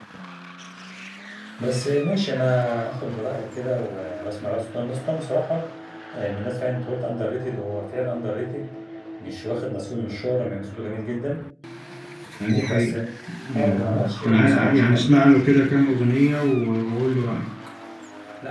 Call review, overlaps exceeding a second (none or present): present